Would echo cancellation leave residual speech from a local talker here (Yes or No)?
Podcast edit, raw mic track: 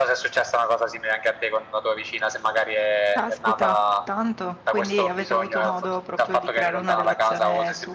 Yes